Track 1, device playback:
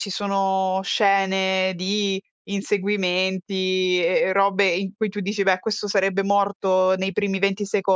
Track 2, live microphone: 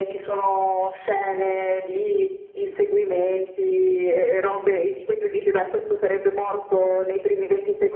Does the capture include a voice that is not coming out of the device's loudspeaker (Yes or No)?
No